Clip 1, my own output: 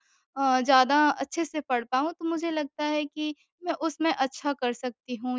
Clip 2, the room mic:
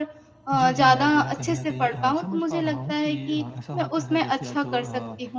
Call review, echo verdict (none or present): present